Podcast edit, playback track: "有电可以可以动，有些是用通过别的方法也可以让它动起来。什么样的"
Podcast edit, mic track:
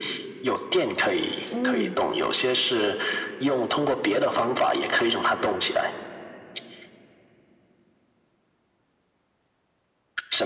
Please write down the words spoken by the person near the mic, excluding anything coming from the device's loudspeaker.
嗯

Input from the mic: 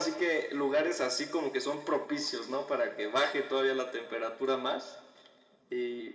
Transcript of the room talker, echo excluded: none

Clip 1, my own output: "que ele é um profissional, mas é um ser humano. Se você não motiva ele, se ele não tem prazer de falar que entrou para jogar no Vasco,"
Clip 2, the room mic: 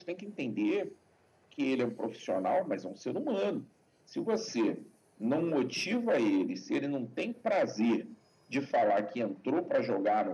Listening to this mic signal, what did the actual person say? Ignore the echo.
none

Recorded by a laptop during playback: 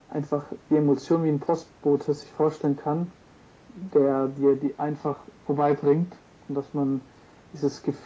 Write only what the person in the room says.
none

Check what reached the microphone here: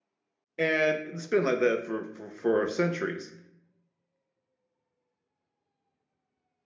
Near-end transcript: And it's been like that for, for, for centuries.

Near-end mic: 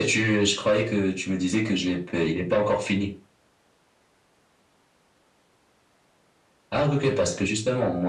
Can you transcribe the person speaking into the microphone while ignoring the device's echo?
none

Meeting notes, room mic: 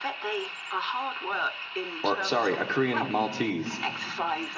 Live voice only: or sorry, a Korean Maltese,

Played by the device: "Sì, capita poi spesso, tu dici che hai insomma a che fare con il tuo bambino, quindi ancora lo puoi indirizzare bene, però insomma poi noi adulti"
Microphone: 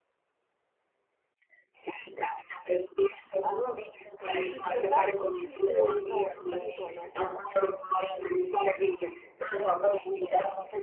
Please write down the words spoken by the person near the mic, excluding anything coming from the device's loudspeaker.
Ah, registri akashici? eh, no, quali sono?

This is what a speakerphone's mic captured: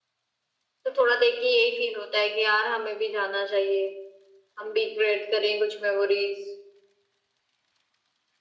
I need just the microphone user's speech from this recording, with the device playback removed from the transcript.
none

